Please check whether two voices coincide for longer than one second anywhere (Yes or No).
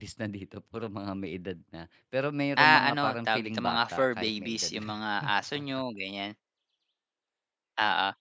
Yes